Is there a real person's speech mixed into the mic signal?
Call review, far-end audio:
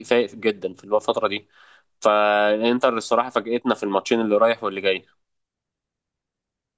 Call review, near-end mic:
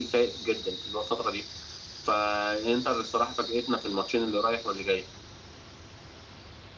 No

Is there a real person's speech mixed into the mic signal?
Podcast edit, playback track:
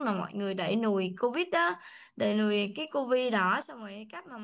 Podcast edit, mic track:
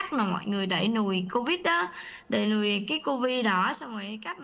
No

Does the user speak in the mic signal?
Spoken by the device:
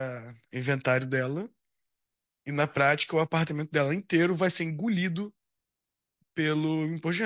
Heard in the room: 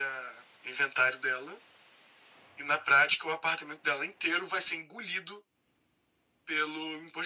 No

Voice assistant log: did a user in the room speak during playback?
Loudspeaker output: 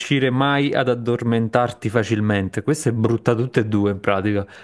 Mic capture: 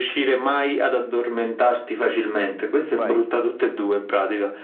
Yes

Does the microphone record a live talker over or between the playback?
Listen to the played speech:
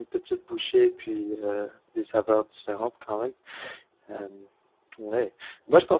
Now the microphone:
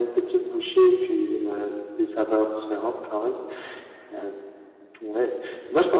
No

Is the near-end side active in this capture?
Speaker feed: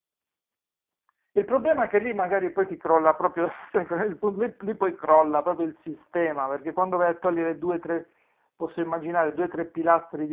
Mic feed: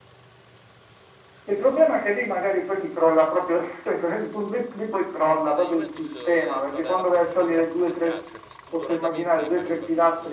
Yes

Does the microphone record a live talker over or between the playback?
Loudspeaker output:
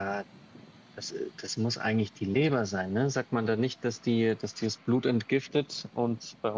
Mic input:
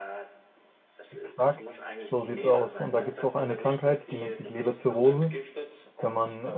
Yes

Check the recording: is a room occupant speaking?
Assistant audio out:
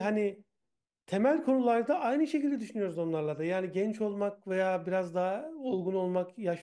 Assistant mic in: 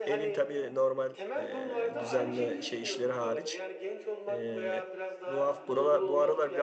Yes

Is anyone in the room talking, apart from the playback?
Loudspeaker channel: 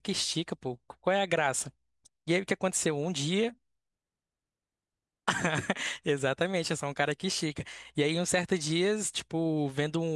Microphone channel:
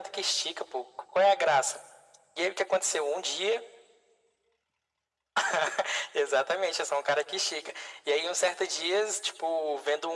No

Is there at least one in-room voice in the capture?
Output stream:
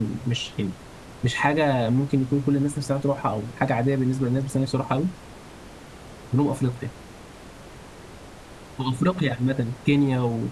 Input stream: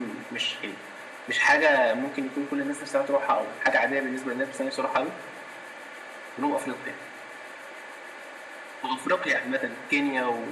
No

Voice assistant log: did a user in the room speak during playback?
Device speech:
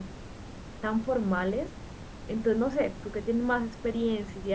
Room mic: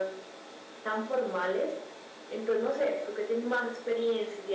No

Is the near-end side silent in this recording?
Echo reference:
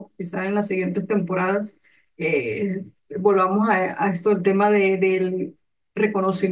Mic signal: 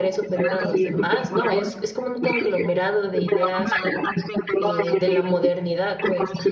No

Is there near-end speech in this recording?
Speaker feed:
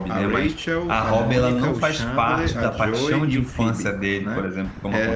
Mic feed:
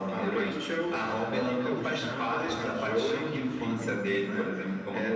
No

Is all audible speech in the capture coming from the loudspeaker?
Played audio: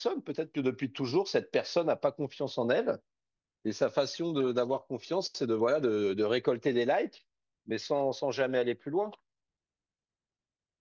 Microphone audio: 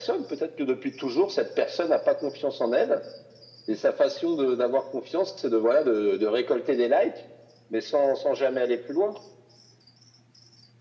Yes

